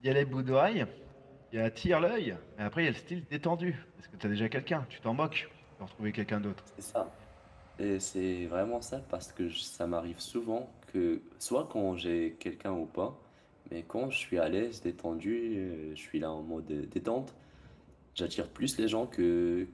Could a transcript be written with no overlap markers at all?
Yes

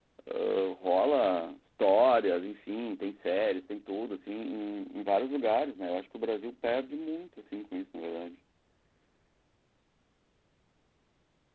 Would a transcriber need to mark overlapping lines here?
No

